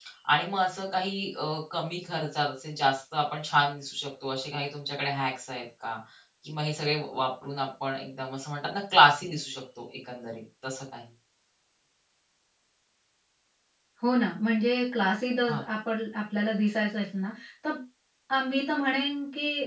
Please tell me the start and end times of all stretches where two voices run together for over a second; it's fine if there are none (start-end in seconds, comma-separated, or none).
none